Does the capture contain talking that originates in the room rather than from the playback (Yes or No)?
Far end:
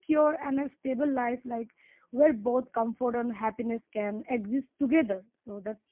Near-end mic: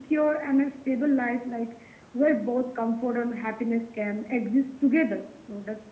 No